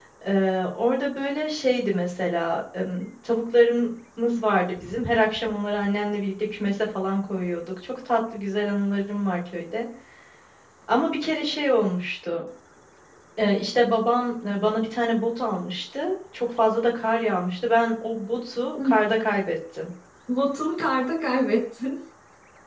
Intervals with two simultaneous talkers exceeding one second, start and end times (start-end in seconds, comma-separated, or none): none